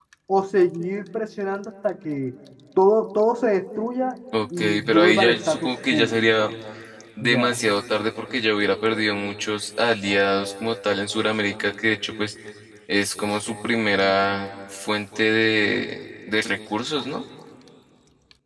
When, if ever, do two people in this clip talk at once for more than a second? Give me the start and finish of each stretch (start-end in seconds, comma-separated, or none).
4.6-6.2